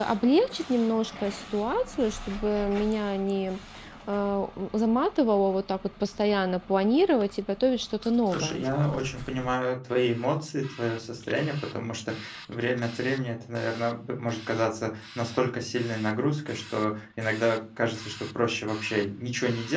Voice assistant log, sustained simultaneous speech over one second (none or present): none